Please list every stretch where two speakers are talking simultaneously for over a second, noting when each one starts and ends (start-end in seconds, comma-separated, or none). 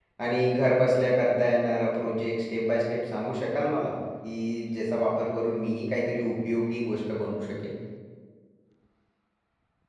none